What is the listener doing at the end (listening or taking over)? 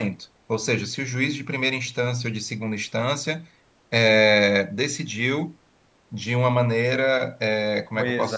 listening